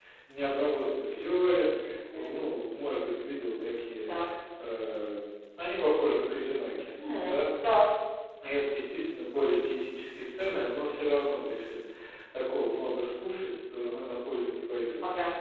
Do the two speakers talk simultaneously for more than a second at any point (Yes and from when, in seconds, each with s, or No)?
No